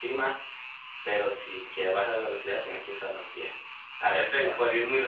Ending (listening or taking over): listening